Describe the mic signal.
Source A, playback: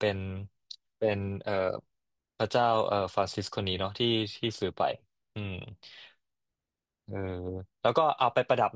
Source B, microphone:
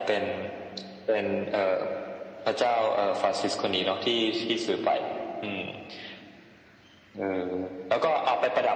echo only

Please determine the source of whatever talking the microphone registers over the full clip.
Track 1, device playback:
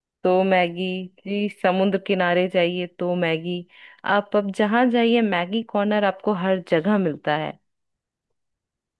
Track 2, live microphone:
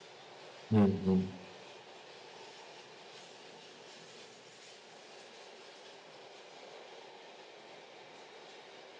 user only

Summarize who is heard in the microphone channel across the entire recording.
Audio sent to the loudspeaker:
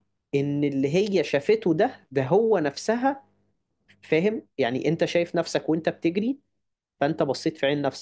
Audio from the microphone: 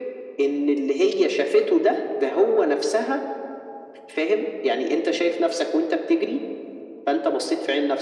echo only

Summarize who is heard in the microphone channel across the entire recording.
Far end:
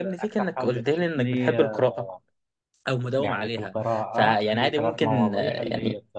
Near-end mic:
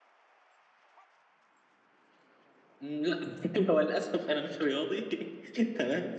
user only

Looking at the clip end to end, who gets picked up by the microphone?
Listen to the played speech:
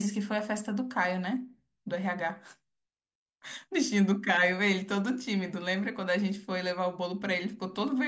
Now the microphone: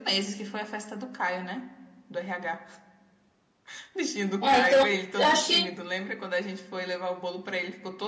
both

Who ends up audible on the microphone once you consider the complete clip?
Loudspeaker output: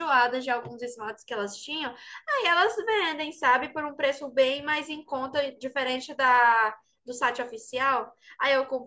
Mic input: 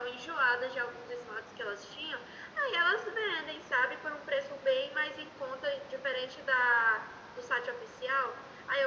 echo only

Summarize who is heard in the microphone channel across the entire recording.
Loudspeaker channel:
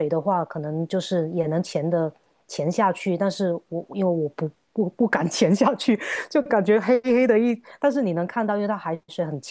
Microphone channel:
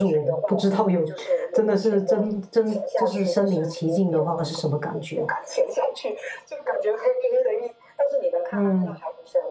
both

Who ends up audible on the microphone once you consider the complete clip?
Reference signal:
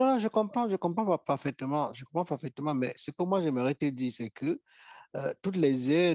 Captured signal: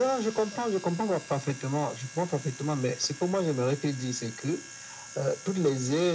echo only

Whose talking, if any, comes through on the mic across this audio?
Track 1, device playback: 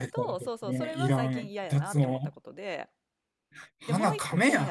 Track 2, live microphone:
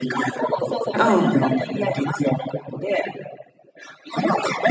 both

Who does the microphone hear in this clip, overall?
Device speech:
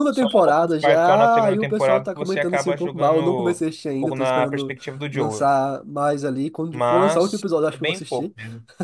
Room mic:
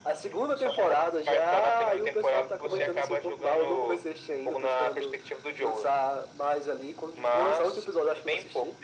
both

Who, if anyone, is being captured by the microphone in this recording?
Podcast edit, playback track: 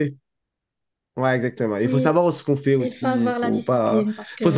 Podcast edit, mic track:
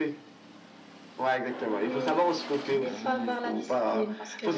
echo only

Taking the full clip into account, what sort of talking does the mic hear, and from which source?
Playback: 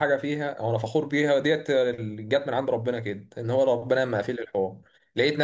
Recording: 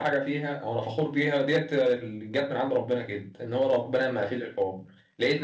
echo only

